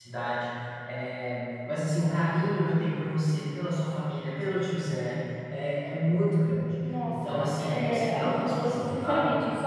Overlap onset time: 6.8 s

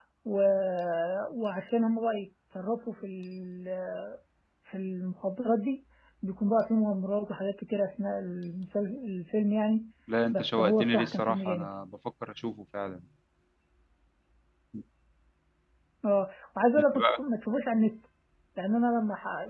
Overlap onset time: 10.3 s

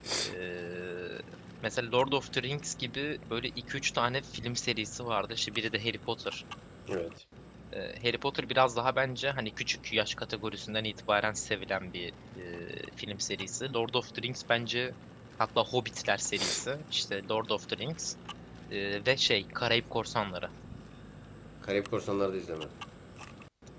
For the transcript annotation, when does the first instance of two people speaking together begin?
none

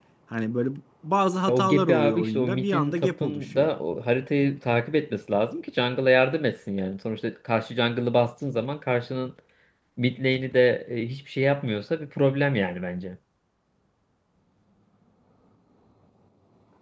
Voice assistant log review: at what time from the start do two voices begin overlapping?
1.5 s

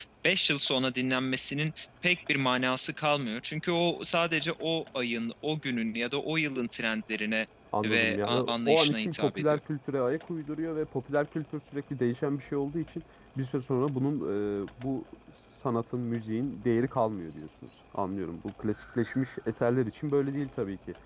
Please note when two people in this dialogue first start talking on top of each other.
7.8 s

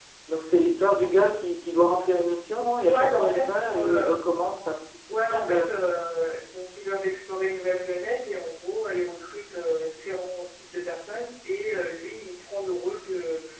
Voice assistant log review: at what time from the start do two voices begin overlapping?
2.8 s

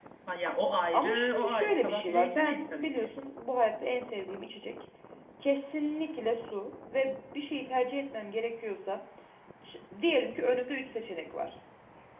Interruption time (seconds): 0.9 s

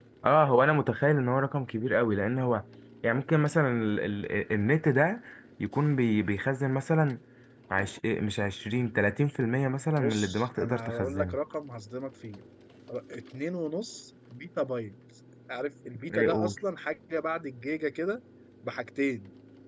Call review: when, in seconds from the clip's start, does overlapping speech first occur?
10.0 s

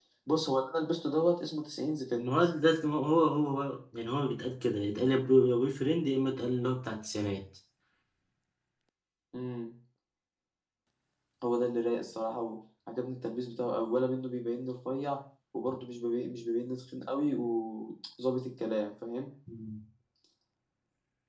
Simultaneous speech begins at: none

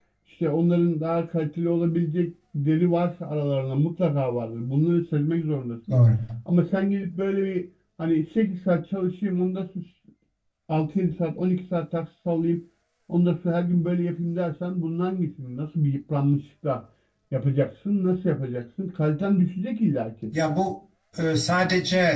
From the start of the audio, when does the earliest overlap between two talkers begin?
none

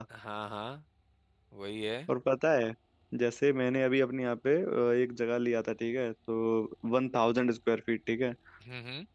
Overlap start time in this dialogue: none

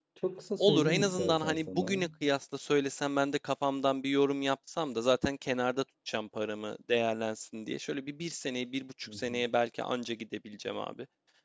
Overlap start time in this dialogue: 0.6 s

